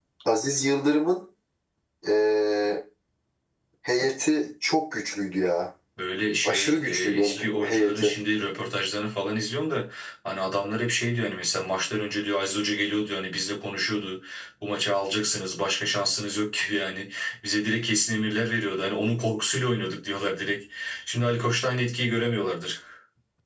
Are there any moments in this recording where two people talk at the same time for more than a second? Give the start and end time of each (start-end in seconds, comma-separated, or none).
6.4-8.1